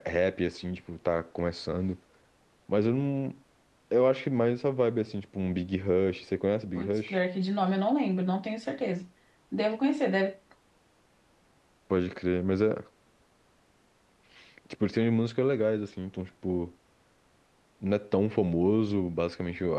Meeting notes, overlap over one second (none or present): none